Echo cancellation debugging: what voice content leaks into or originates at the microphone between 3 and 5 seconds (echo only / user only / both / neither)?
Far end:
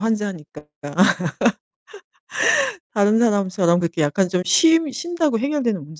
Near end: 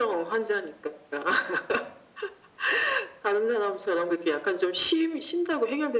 echo only